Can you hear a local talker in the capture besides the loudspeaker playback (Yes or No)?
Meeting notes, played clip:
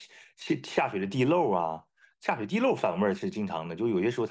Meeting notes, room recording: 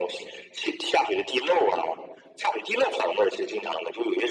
No